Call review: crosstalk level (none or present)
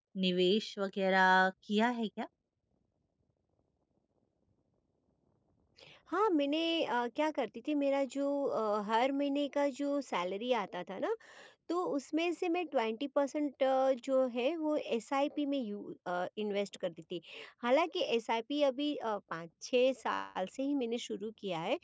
none